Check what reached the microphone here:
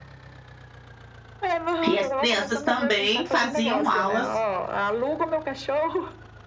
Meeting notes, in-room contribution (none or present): present